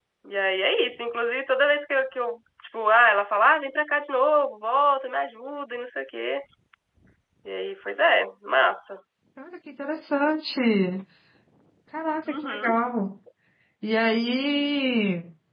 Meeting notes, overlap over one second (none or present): none